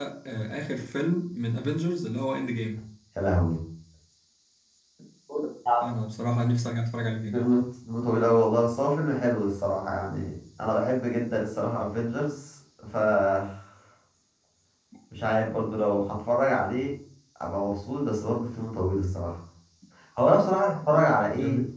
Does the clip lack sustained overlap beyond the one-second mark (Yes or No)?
Yes